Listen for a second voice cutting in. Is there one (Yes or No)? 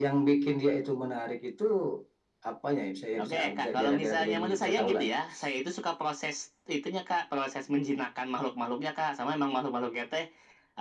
Yes